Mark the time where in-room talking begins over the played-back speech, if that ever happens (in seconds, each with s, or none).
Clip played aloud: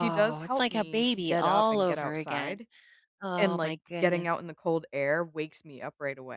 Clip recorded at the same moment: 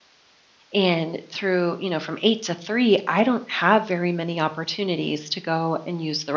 0.7 s